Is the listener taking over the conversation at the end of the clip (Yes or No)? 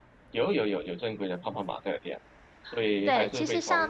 Yes